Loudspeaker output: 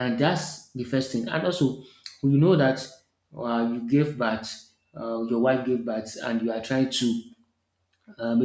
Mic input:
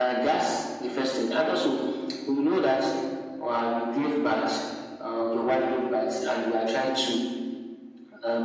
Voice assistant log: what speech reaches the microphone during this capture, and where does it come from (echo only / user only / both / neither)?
echo only